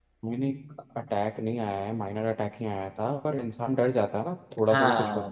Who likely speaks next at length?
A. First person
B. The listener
A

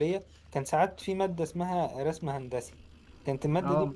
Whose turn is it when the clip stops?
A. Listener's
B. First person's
B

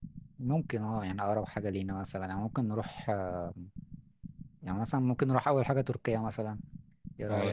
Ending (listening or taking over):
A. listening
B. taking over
B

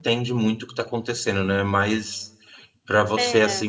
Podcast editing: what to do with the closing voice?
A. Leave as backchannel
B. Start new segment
A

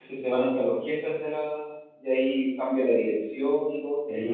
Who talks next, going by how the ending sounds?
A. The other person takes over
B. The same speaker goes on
A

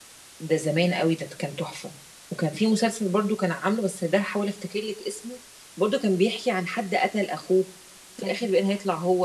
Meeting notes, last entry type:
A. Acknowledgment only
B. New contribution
A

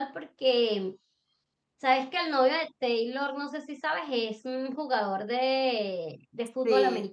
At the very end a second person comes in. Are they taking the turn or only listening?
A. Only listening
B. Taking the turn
A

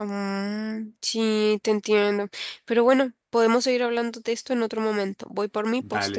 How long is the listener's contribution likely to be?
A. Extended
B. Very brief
A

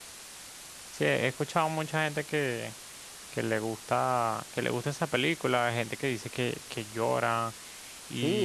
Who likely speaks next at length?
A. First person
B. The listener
B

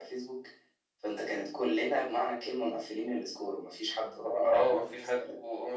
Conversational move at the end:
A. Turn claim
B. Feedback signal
A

